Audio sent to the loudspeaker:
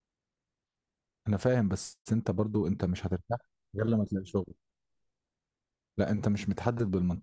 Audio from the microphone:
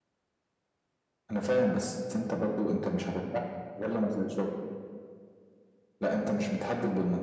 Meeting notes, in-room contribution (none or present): none